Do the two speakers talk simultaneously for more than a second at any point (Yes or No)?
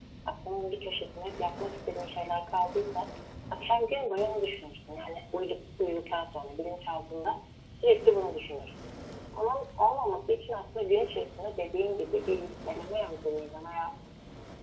No